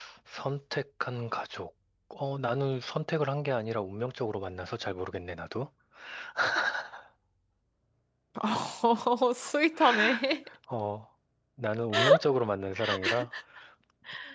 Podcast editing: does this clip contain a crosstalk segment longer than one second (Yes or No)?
No